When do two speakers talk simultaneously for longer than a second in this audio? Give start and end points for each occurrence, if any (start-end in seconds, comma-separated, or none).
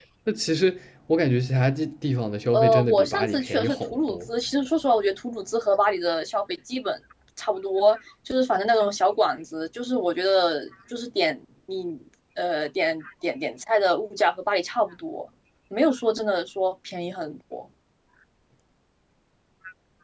2.5-4.2